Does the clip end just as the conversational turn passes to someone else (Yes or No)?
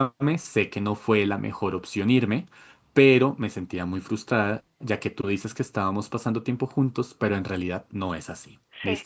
No